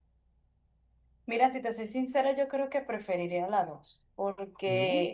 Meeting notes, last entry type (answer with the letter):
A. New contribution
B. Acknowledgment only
B